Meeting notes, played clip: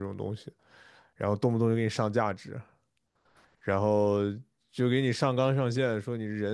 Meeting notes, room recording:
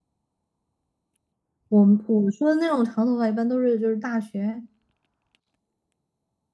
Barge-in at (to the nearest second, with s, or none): 2 s